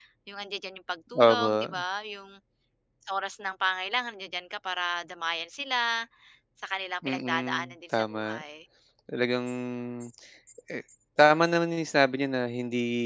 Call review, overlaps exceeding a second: present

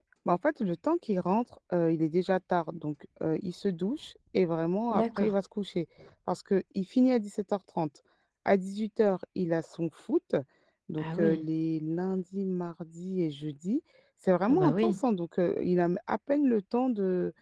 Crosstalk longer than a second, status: none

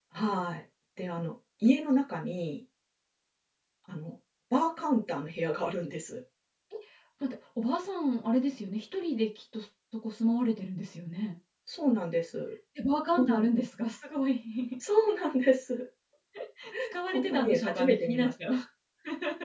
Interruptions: present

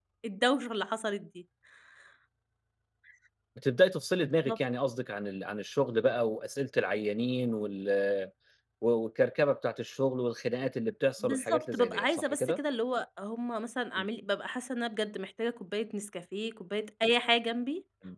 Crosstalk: present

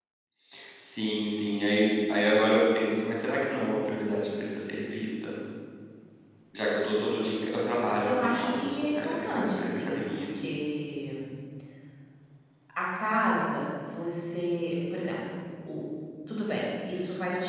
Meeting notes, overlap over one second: present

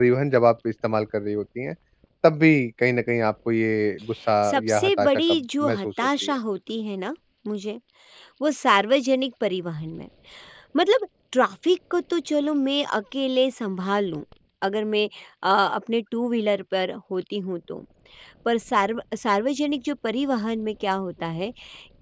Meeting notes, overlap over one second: present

